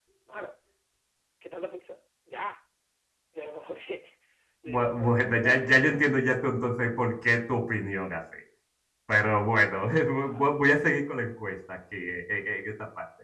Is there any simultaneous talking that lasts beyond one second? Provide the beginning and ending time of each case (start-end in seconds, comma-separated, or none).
4.7-6.1